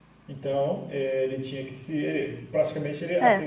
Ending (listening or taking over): listening